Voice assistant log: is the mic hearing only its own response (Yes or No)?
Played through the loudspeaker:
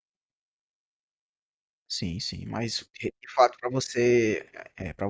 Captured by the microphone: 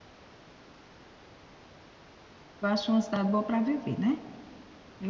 No